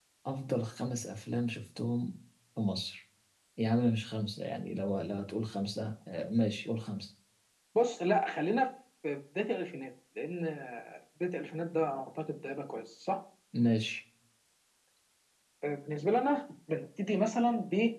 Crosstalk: none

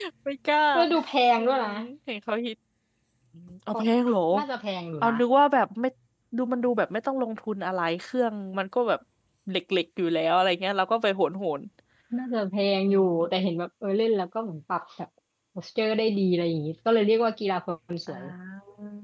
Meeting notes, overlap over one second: none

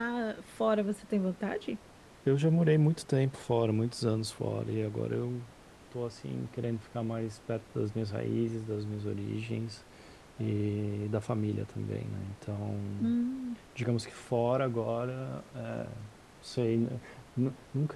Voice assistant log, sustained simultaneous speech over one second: none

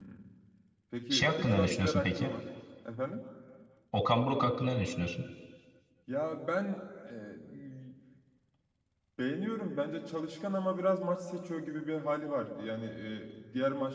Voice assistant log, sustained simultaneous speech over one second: present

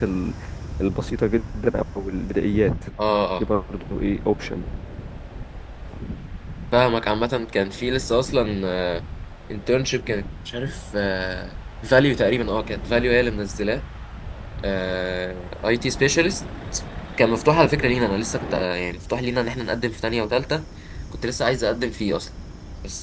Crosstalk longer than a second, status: none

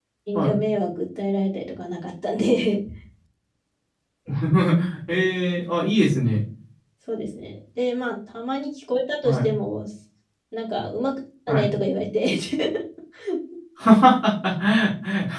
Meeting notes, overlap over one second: none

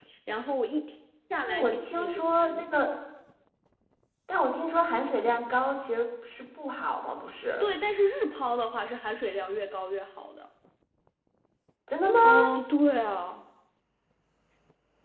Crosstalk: present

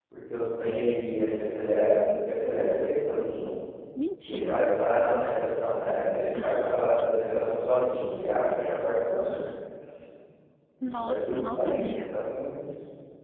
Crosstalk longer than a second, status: present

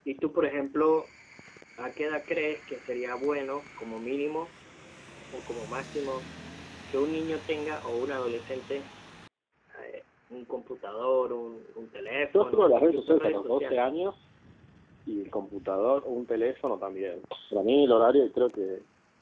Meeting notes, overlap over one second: present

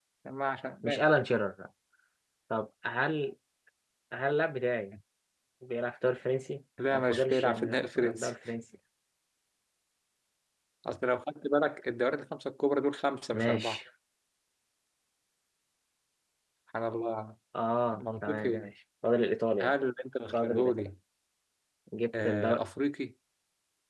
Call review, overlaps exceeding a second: present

